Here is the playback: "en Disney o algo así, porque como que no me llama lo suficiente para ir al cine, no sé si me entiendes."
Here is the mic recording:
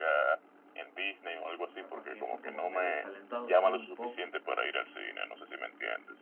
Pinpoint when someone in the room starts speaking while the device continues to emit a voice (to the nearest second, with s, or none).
2 s